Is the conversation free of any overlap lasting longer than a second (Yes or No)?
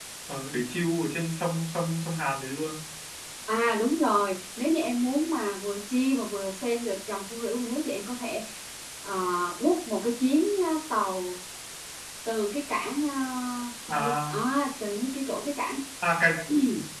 Yes